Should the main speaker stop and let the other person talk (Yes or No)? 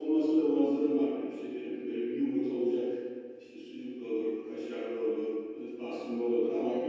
No